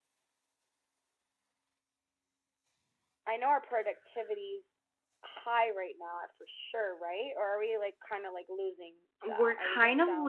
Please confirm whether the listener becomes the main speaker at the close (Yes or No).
Yes